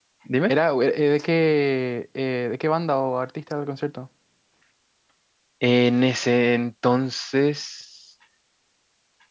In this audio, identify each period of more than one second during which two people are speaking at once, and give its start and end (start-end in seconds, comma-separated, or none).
none